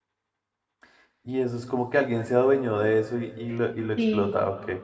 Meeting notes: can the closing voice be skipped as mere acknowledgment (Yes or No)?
No